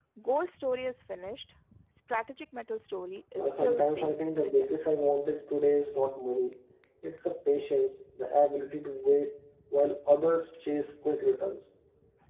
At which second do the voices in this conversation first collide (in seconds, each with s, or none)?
3.4 s